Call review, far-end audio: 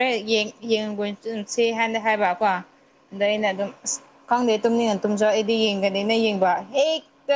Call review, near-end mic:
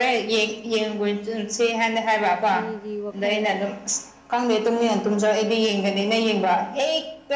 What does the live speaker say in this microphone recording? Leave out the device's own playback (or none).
ꯃꯤꯒꯤ ꯋꯥꯈꯟꯗ